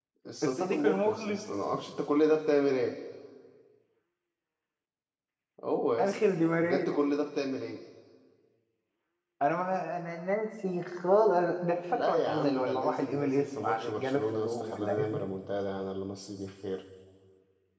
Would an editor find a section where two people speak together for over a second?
Yes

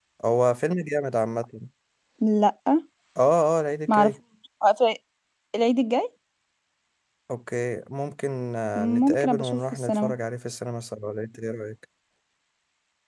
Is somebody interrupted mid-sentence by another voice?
Yes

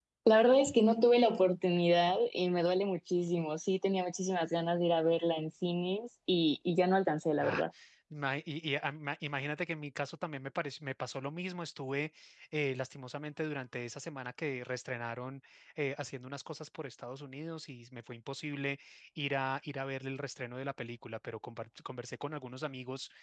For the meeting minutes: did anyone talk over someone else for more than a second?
No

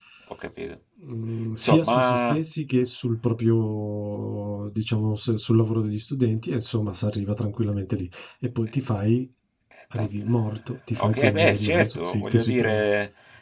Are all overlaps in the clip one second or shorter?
No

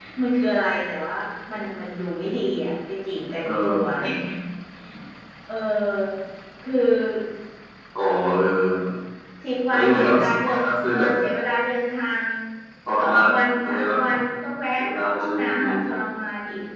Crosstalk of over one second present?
Yes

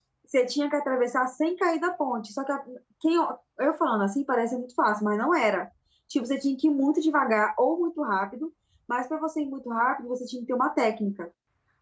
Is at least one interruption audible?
No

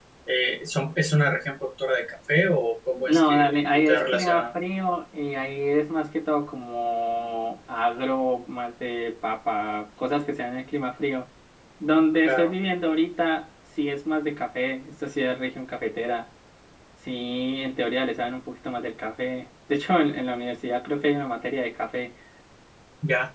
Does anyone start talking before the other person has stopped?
Yes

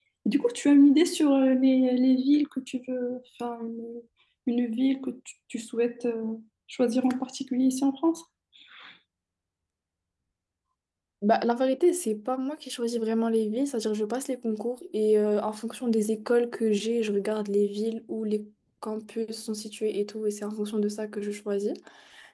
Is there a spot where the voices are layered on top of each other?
No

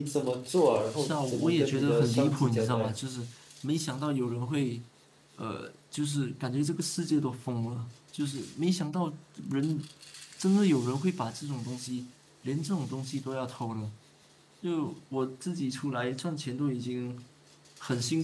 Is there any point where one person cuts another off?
Yes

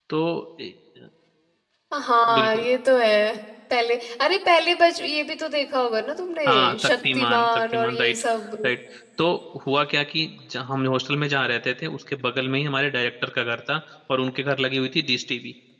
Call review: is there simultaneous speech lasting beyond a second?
Yes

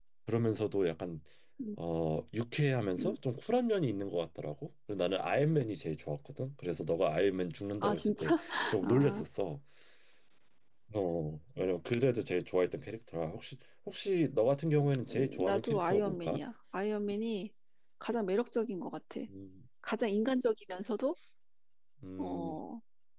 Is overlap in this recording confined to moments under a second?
No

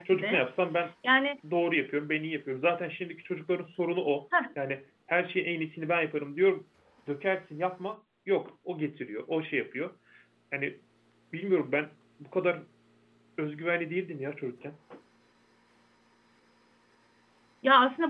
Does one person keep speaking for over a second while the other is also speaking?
No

